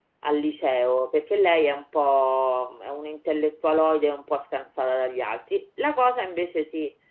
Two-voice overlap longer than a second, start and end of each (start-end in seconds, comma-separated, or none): none